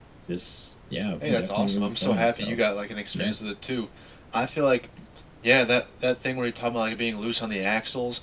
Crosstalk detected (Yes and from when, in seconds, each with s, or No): Yes, from 1.2 s